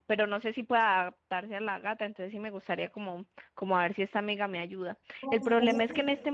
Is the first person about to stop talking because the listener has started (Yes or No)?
No